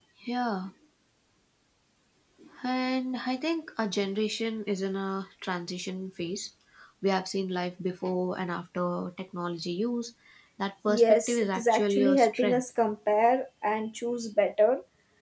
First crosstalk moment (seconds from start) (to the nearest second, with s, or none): 11 s